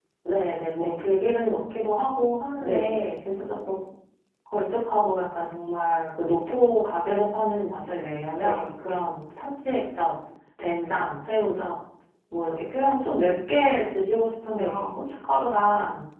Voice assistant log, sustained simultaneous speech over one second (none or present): none